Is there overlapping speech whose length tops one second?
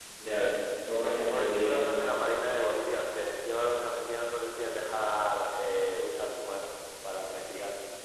No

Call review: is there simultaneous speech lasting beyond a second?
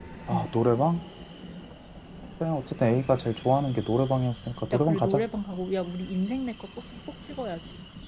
No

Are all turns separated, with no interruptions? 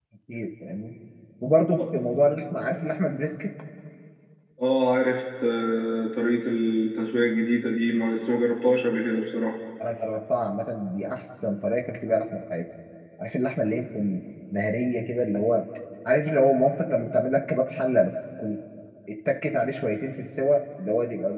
Yes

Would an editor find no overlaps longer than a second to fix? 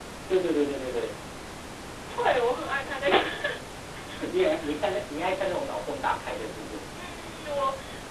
Yes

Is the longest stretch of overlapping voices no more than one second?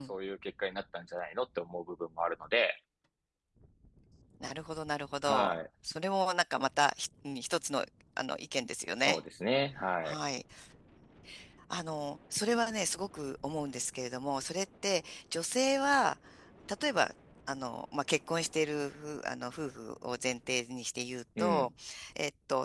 Yes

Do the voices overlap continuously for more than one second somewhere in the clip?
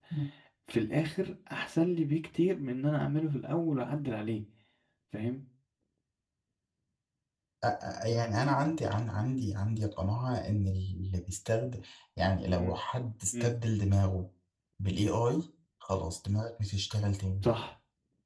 No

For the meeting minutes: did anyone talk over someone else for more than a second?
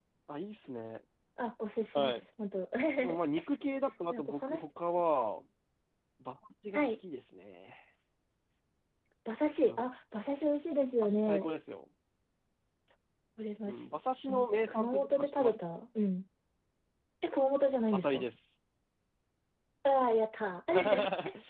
Yes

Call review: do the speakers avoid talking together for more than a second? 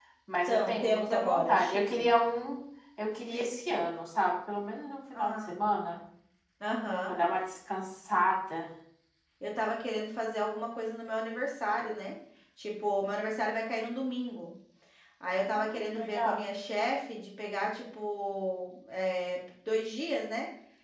No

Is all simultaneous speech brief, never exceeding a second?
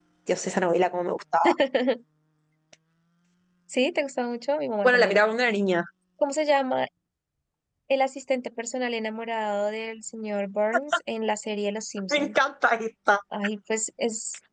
Yes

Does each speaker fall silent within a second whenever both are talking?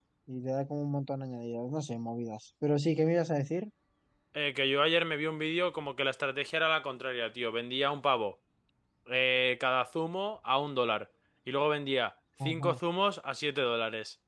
Yes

